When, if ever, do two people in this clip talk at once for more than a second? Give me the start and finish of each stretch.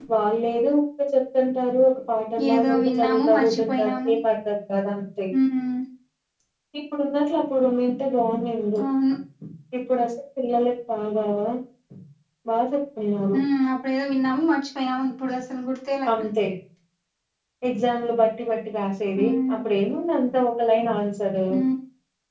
2.5-4.1

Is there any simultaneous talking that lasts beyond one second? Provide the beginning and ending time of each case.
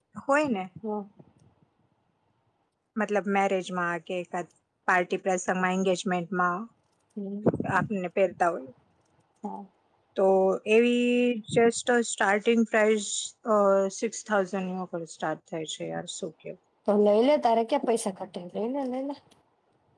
none

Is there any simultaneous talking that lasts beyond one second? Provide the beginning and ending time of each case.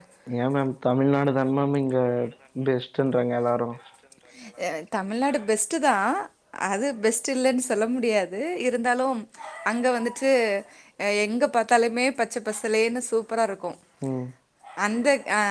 none

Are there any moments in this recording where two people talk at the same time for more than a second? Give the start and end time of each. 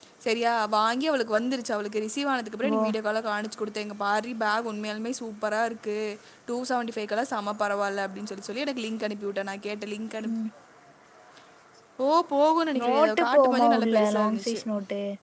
12.8-14.6

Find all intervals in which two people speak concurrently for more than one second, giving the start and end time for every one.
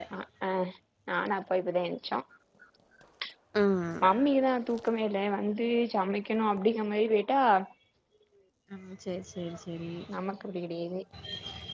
none

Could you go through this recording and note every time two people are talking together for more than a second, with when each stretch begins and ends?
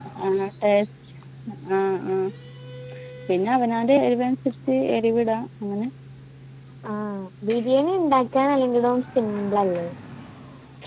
none

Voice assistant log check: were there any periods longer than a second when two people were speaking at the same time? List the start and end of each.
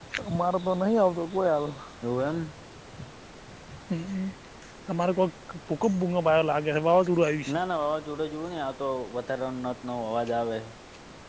none

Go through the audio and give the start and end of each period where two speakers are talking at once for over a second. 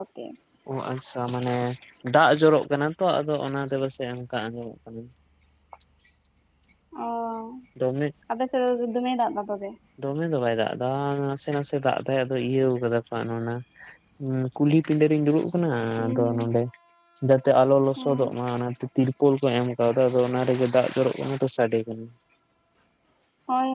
none

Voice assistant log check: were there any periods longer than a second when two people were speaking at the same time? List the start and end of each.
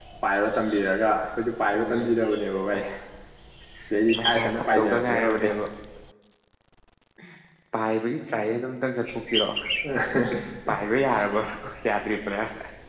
4.2-5.5

